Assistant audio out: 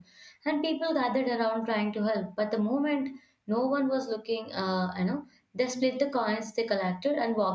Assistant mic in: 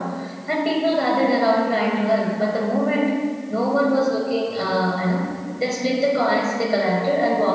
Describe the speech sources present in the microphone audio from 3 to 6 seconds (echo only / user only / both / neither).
echo only